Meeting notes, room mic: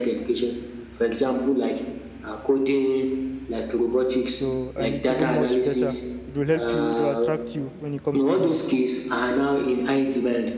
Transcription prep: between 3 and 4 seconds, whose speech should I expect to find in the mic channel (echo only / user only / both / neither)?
echo only